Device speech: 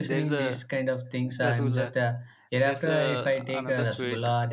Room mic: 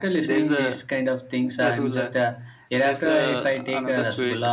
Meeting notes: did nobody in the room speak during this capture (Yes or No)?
Yes